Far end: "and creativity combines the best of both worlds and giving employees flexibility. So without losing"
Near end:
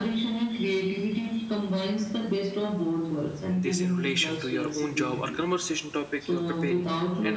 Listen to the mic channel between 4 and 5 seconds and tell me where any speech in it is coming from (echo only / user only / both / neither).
both